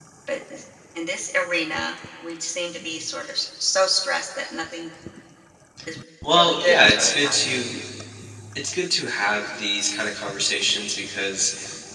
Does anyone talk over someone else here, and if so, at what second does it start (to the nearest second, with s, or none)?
6 s